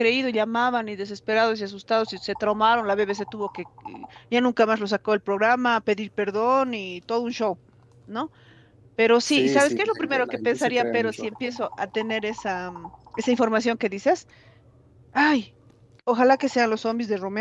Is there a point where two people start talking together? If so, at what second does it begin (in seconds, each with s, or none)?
9.3 s